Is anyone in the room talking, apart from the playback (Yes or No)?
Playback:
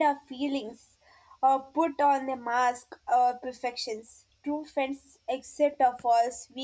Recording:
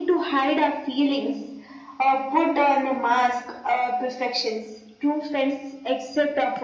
No